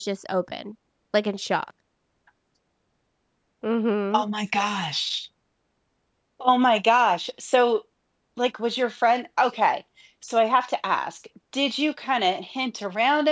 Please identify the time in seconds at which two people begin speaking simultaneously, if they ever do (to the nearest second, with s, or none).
none